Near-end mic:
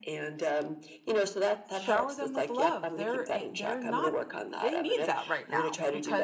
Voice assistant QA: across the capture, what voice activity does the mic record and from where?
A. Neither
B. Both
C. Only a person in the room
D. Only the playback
B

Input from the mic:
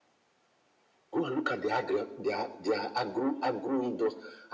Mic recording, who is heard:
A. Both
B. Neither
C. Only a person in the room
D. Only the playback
D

